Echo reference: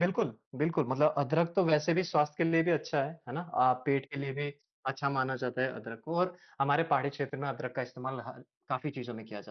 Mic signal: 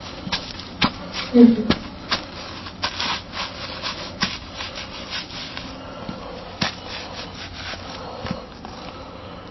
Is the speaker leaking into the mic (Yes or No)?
No